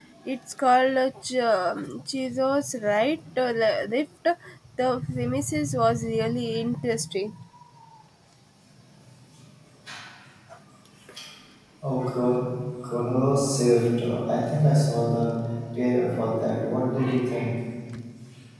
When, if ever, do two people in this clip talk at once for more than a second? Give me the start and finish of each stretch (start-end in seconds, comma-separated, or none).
none